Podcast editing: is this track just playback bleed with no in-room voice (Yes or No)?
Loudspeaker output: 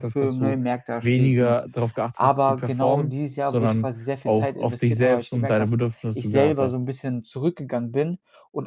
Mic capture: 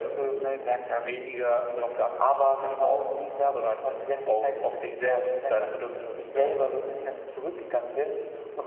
Yes